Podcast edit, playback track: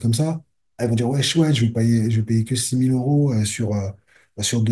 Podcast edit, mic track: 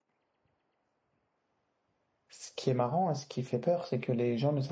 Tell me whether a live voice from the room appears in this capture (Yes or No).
Yes